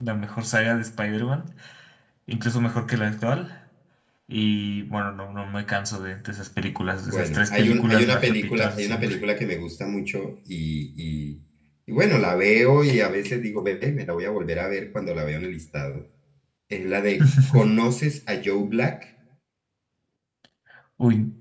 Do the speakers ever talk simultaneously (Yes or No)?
Yes